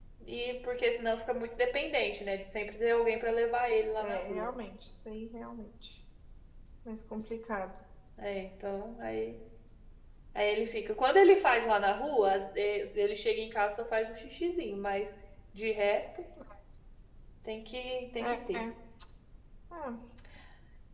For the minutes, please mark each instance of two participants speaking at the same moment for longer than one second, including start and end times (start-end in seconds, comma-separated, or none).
none